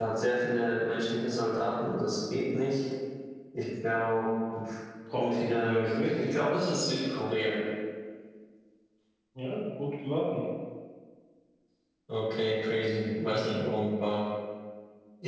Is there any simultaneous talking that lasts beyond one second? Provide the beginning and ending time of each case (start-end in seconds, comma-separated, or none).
5.2-6.5